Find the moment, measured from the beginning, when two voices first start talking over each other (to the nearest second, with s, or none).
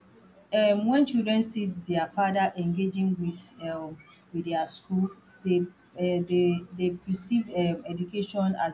none